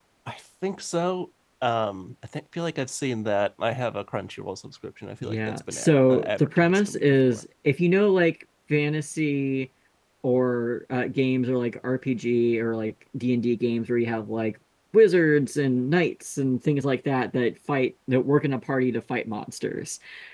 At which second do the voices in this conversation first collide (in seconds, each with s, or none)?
5.2 s